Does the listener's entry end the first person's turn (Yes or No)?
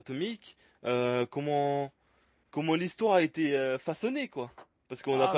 Yes